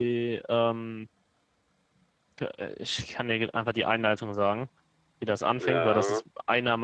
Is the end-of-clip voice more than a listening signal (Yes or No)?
No